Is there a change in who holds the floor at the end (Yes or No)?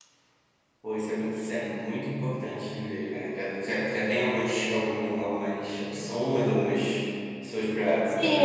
Yes